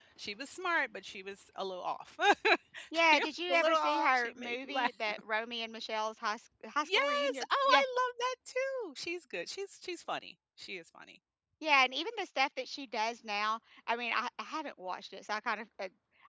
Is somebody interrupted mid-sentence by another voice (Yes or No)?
Yes